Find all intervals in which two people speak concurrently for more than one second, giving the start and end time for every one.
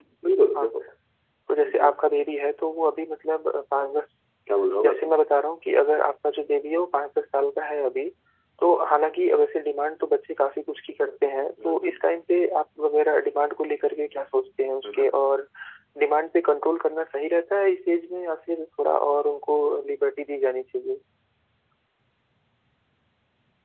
none

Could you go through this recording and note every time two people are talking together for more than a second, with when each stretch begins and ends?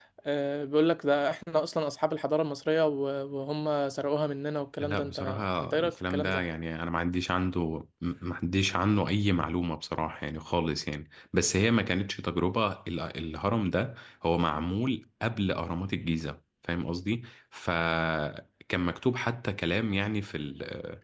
4.8-6.4

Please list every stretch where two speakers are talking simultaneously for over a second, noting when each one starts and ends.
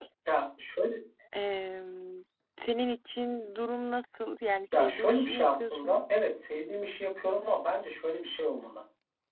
4.7-6.0

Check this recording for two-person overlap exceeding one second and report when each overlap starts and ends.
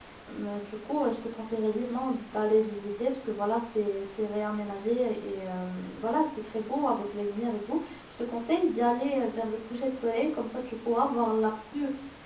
none

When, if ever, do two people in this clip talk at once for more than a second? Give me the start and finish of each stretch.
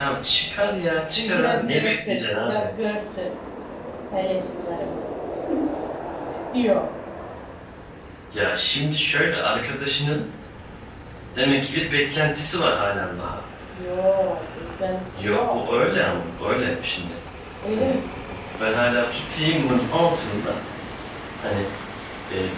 1.2-2.7

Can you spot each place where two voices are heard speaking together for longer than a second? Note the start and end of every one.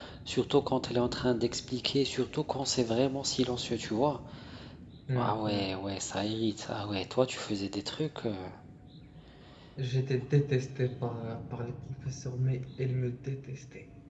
none

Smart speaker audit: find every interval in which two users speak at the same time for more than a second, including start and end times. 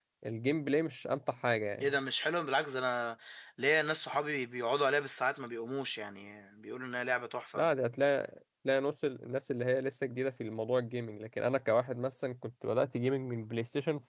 none

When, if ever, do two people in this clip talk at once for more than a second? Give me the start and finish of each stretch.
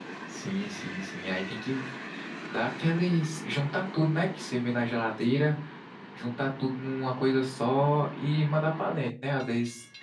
none

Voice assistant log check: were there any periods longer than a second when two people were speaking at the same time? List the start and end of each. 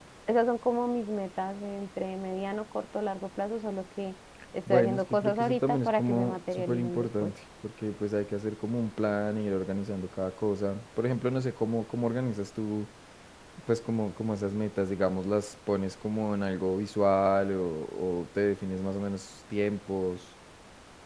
4.7-7.3

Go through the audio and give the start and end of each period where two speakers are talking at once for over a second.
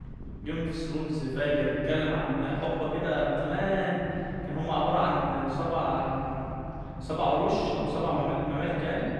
none

